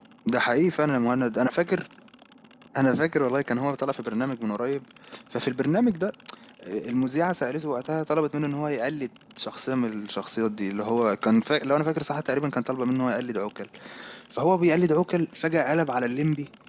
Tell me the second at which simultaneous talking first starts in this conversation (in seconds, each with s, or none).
none